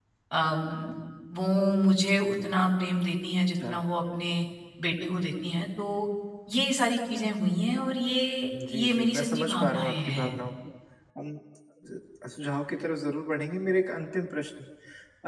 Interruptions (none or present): present